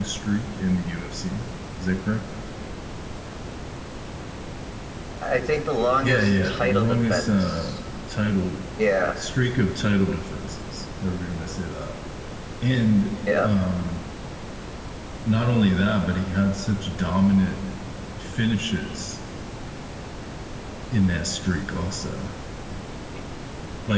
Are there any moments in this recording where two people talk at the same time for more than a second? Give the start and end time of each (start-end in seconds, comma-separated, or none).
6.0-7.8